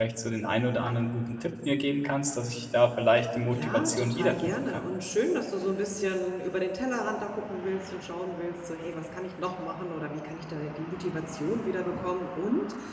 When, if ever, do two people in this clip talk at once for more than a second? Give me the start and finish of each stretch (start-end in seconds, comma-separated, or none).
3.5-4.8